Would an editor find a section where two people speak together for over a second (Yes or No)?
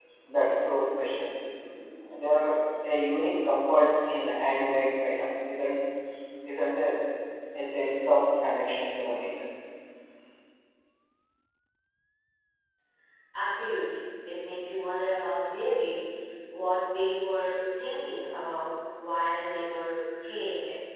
No